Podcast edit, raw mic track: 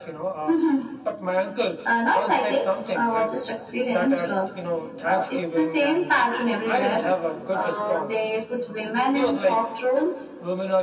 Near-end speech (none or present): none